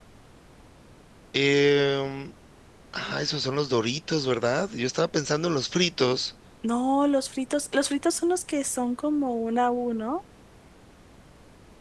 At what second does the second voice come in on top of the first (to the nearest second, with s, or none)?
none